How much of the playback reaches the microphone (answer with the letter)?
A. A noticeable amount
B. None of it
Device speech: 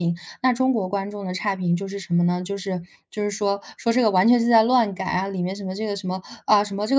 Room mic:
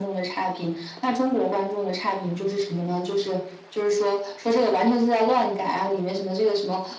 A